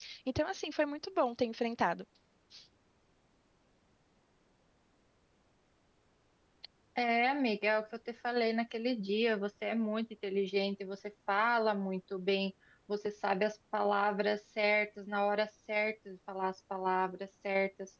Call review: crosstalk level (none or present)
none